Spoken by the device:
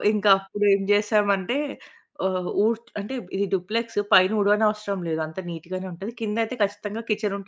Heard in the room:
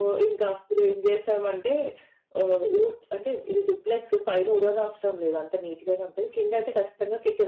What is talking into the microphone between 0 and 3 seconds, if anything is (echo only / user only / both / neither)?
echo only